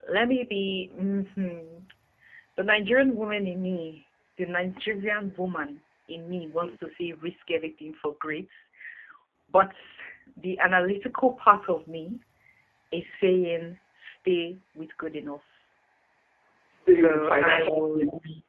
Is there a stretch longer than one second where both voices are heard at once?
Yes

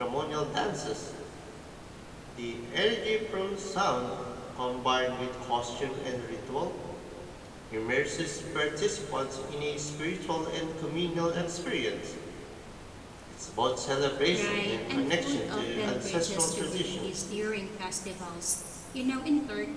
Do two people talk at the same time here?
Yes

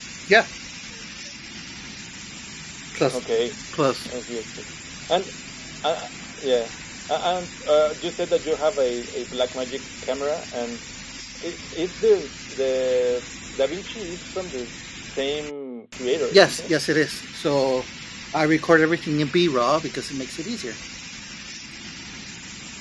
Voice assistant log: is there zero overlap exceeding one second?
Yes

